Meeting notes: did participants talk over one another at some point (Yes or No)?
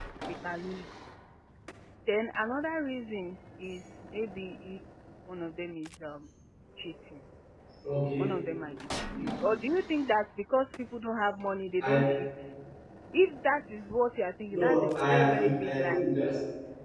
Yes